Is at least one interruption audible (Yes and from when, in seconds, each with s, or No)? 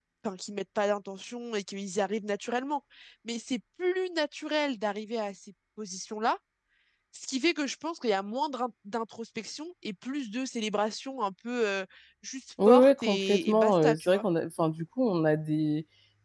Yes, from 12.6 s